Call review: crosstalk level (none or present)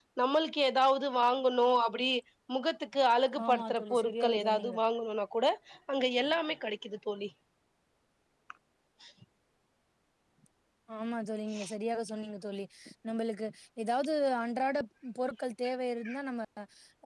present